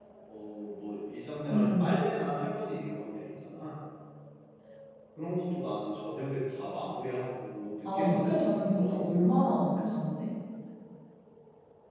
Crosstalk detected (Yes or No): Yes